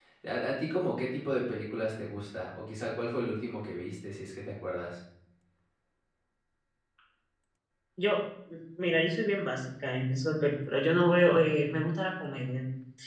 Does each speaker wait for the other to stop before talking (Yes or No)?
Yes